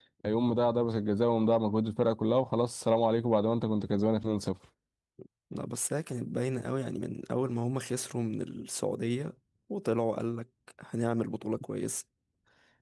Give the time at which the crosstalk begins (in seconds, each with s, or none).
none